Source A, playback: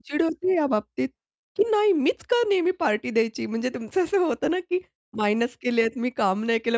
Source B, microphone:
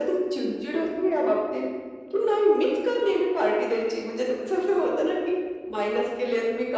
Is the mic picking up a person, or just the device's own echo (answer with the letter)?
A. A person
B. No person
B